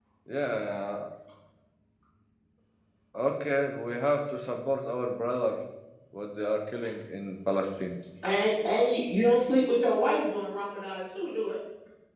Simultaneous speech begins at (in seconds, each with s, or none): none